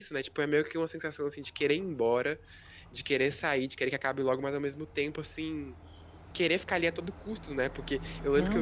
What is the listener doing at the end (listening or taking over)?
listening